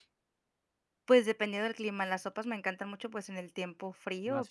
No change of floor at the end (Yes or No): Yes